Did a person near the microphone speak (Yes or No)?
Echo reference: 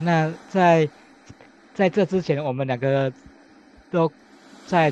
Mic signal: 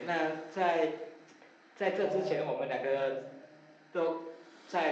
Yes